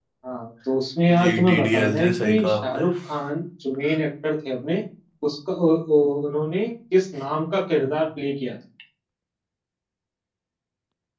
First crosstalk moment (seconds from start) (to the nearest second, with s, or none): 1 s